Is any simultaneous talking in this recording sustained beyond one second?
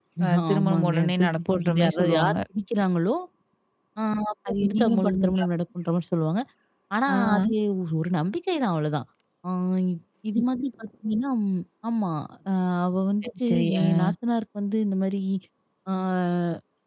Yes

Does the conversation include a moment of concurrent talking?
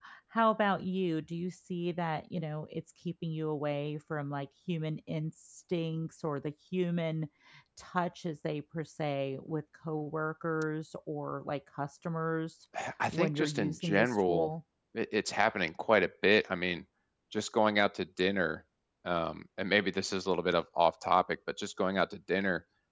Yes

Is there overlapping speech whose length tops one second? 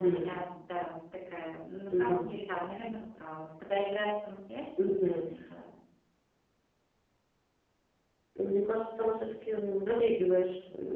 No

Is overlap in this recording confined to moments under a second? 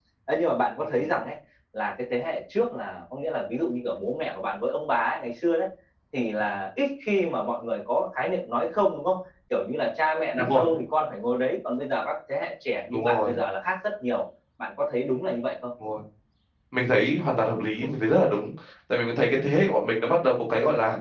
Yes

